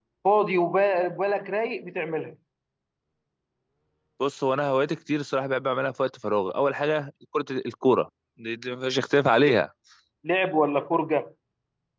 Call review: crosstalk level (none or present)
none